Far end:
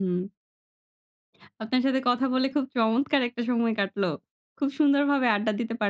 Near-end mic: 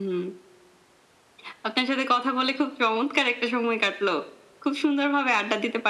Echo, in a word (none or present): present